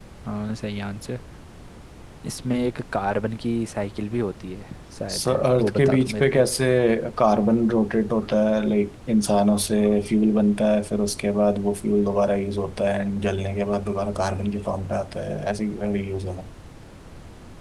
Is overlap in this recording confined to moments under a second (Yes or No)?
No